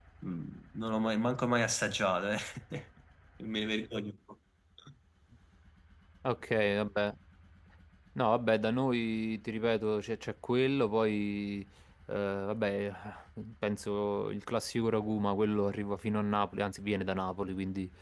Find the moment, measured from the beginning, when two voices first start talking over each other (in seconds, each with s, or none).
none